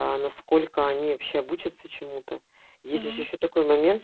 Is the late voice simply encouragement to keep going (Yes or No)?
Yes